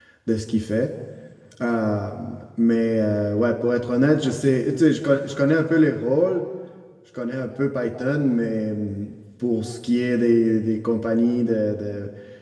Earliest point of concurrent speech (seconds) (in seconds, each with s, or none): none